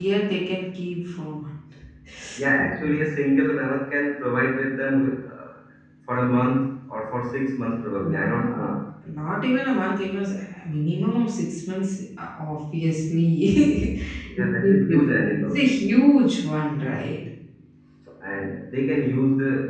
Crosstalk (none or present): present